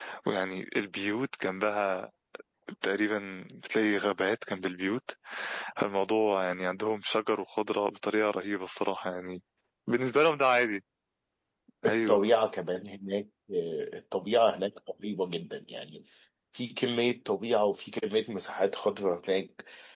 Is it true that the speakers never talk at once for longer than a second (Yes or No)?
Yes